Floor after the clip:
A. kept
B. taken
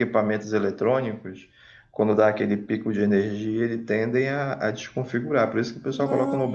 B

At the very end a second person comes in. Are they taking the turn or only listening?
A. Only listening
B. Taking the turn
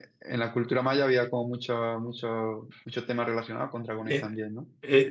B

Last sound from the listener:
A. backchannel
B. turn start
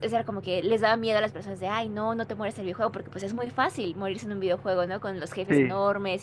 A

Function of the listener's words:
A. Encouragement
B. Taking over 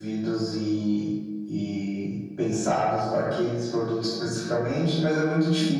A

